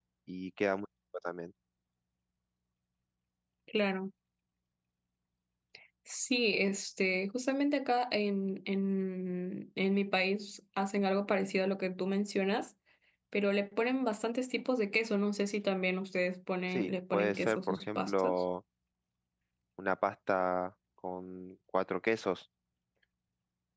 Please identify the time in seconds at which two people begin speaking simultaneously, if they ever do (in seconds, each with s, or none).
16.7 s